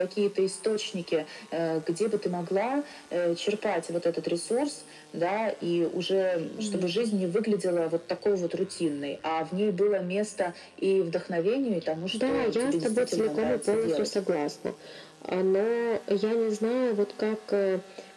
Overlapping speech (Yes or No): Yes